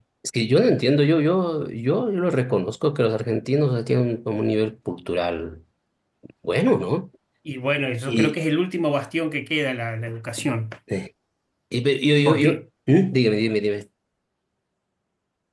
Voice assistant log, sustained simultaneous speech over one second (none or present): none